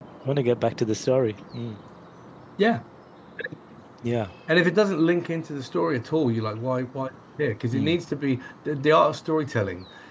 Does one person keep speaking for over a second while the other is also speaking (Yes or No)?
No